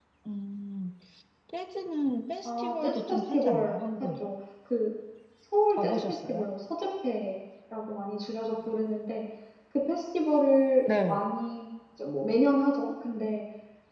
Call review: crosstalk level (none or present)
present